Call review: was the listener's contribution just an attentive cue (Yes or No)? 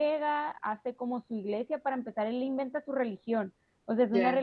Yes